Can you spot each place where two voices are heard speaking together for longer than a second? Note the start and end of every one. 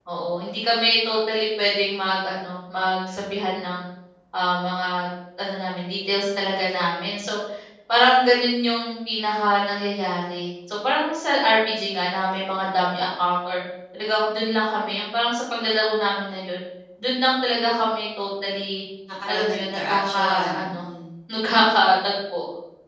19.3-20.9

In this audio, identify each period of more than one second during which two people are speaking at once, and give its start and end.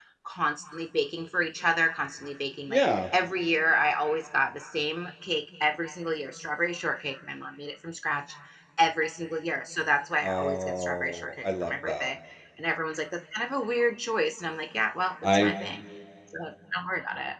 10.2-12.1

